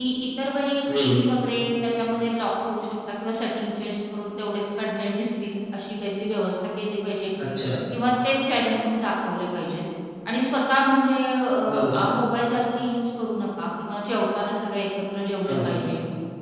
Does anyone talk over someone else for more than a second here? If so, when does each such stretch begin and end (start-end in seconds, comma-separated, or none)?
none